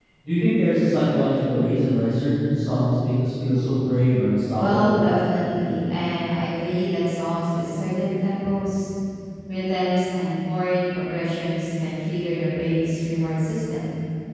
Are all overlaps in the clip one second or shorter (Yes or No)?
Yes